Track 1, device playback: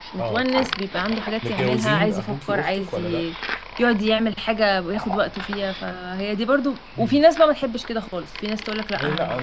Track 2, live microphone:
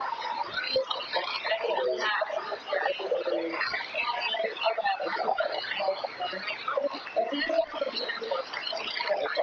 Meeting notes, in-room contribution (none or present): none